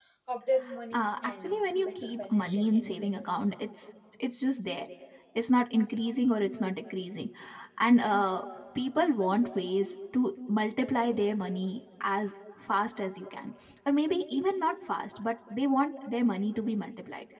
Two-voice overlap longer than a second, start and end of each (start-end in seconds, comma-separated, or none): 0.9-3.5